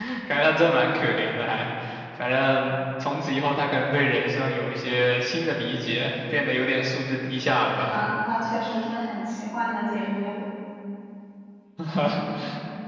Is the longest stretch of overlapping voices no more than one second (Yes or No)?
Yes